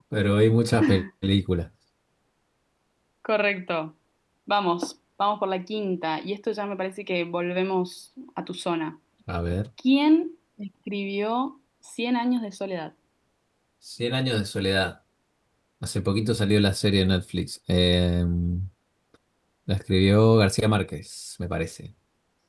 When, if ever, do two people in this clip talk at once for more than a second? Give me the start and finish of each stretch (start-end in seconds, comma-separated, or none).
none